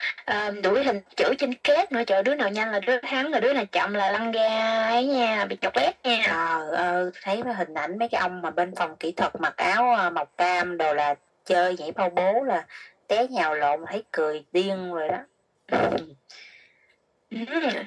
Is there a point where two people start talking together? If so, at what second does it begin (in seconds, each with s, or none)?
none